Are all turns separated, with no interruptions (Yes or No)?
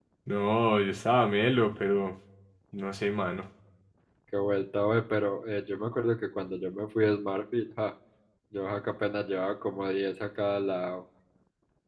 Yes